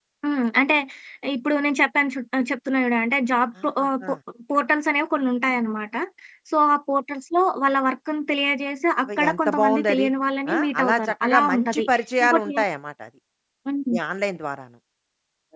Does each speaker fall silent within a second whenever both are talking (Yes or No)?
No